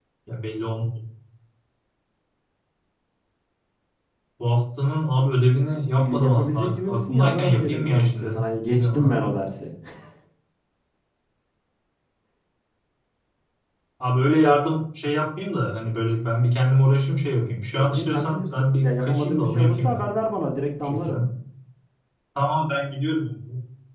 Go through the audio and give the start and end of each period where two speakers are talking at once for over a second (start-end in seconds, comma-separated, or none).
6.0-9.2, 17.8-20.0